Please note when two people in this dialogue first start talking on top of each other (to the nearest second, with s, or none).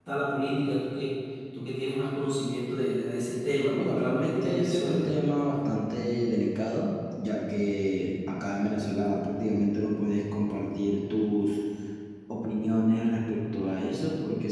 4 s